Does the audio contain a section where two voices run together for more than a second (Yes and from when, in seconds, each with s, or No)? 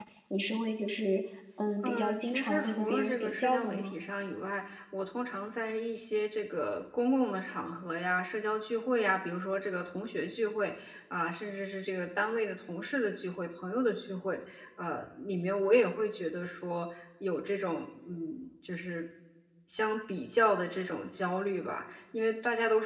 Yes, from 1.8 s